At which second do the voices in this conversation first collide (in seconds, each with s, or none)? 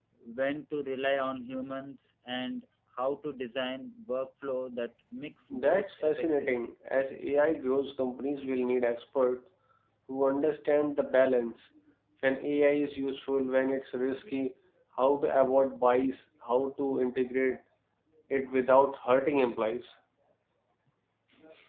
5.5 s